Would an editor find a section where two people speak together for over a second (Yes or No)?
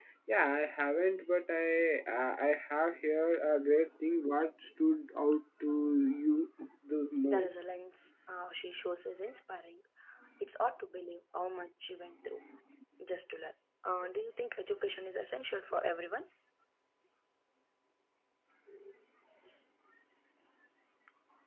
No